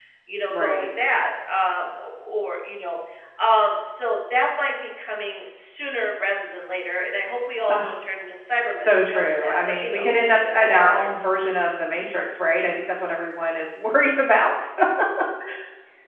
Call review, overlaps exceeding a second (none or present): present